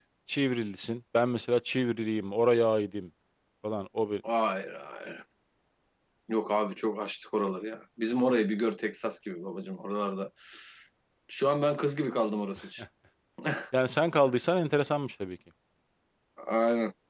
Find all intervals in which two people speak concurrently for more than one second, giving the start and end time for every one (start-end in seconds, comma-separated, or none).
none